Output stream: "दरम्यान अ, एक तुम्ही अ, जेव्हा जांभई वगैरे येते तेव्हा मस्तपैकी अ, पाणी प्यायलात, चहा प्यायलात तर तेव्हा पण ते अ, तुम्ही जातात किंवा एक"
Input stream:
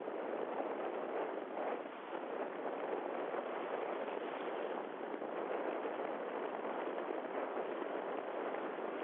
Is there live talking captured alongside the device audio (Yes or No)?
No